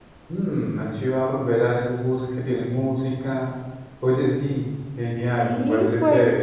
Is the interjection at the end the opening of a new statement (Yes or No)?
Yes